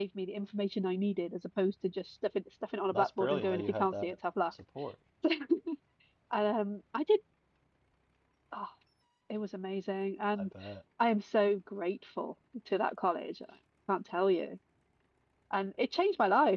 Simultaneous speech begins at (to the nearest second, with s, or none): 3 s